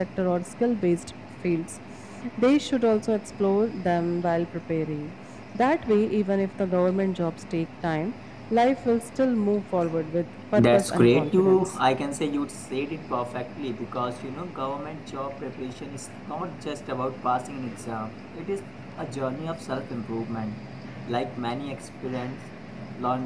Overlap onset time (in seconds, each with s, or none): 10.5 s